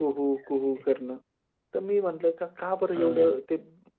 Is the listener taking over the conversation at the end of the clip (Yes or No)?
No